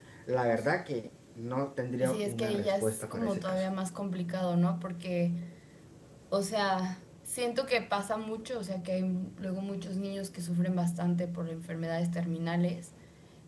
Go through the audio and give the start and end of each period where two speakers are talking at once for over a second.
2.0-3.6

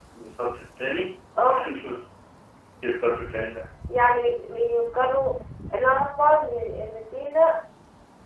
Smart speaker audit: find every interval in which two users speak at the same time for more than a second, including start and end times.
none

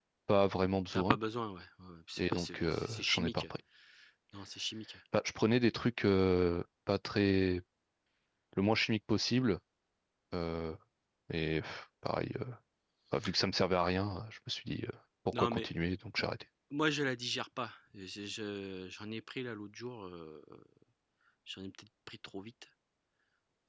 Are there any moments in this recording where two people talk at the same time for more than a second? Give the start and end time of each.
2.2-3.5

